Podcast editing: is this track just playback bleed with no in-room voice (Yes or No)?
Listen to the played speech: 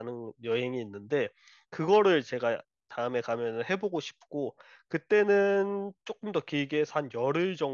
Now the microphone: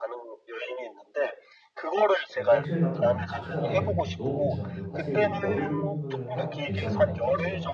No